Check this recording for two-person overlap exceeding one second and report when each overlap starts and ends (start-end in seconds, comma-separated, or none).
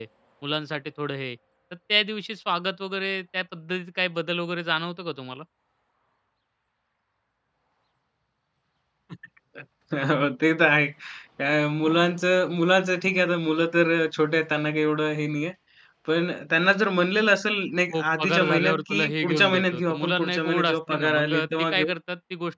17.9-21.9